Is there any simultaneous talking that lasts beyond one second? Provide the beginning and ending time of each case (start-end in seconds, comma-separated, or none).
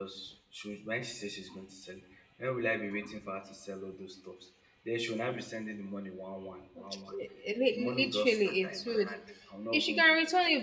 7.7-9.1